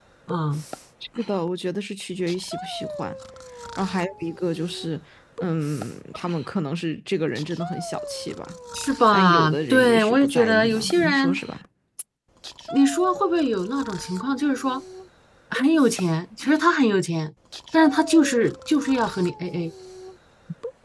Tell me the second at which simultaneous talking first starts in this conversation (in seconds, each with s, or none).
9.1 s